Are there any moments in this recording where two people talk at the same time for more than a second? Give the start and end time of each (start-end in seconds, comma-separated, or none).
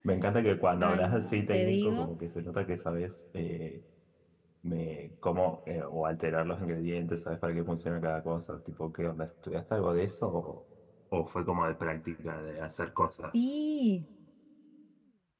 0.8-2.1